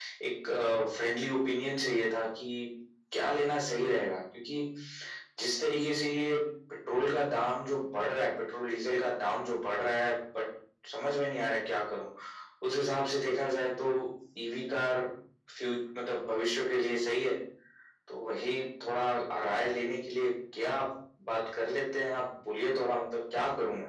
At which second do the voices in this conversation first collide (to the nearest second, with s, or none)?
none